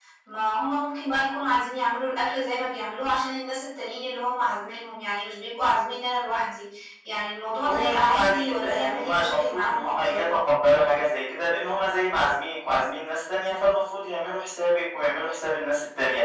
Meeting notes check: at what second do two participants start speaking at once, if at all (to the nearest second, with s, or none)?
8 s